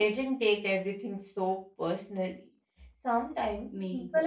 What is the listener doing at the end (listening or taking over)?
listening